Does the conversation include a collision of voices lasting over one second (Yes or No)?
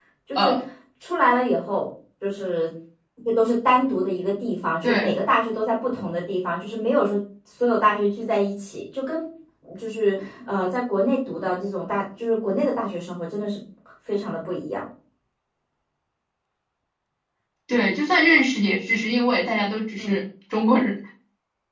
No